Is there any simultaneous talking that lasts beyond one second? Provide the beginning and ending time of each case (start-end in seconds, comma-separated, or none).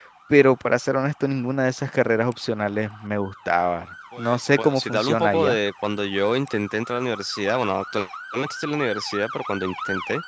4.2-5.6